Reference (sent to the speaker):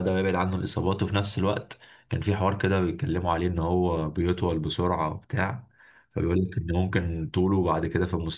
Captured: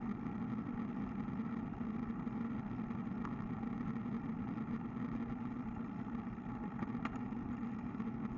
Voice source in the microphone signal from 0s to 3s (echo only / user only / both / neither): neither